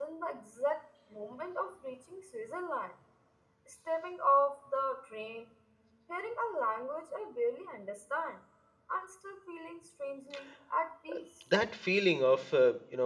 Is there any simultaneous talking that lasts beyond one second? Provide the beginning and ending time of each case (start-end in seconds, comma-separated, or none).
none